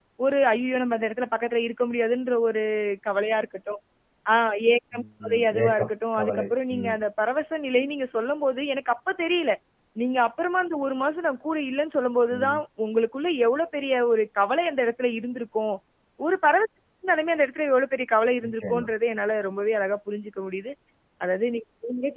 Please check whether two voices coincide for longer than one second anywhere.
Yes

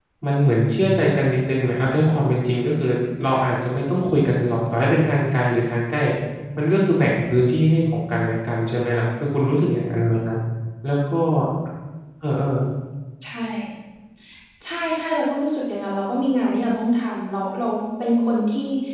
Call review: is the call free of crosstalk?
Yes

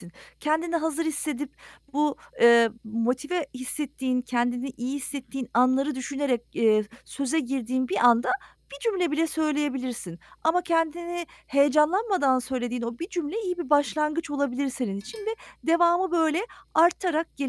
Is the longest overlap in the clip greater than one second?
No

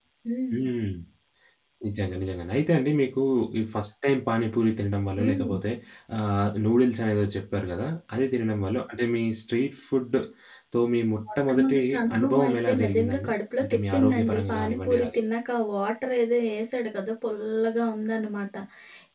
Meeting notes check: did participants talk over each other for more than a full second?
Yes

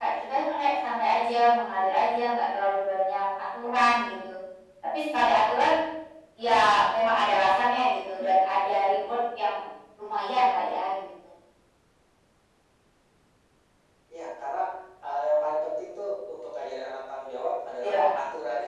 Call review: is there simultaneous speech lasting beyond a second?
No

